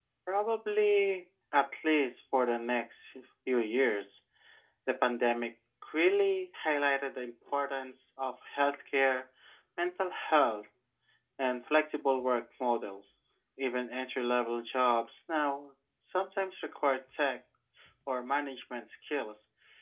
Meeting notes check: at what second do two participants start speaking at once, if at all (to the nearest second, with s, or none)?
none